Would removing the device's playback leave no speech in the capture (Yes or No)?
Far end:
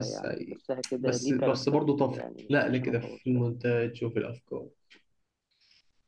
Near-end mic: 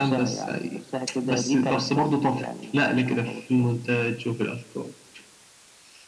Yes